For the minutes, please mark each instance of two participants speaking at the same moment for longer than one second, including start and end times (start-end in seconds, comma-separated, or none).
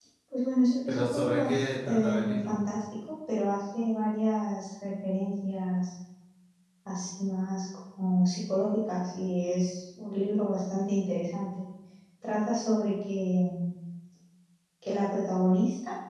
0.9-2.5